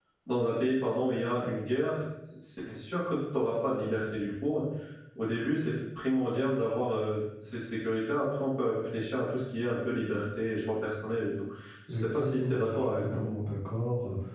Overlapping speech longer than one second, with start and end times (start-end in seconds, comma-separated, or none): 11.9-13.3